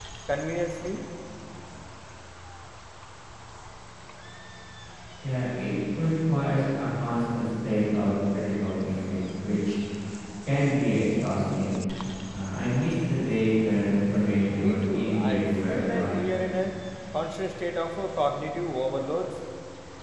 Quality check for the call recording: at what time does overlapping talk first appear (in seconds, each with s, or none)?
14.6 s